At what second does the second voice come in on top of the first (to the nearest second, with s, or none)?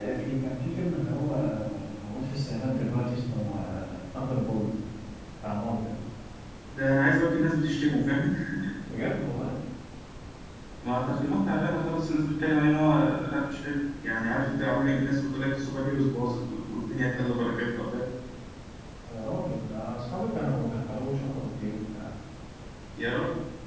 none